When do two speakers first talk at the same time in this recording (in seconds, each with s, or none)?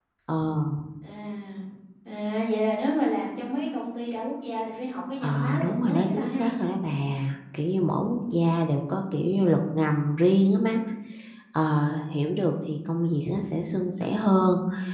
5.2 s